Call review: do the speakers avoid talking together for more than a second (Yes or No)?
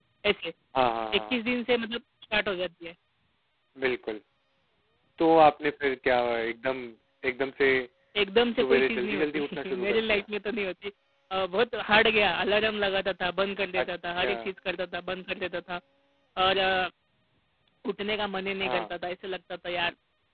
No